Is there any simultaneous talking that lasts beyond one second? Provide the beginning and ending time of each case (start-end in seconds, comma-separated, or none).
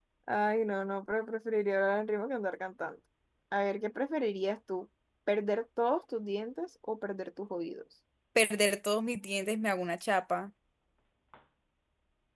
none